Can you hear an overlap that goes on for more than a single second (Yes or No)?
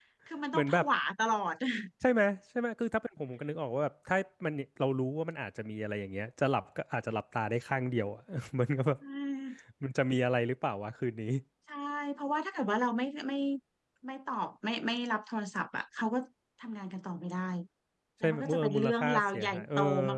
Yes